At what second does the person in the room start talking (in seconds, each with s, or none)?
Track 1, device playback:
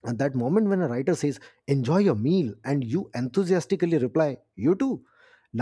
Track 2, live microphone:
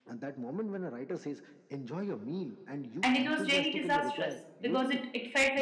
3.0 s